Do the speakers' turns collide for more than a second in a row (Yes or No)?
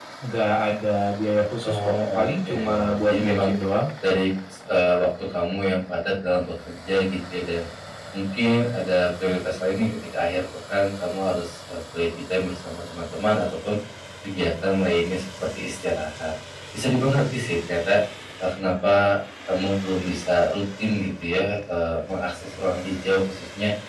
Yes